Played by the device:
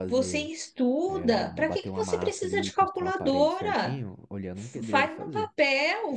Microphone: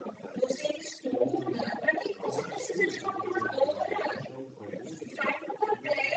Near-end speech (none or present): present